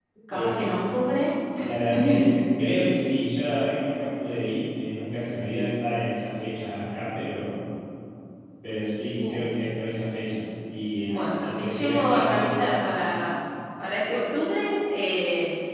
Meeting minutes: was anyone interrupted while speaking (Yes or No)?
Yes